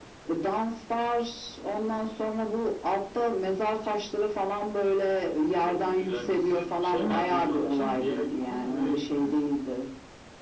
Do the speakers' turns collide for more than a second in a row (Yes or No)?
Yes